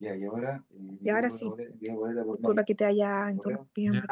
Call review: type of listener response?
taking over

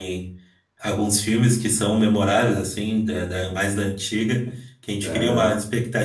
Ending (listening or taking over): listening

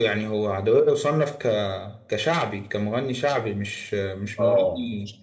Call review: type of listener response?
listening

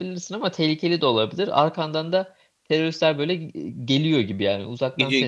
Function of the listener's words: taking over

